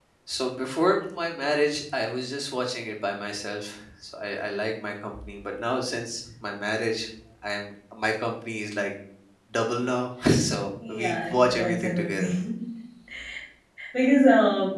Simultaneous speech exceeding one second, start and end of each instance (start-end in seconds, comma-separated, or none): 10.9-12.3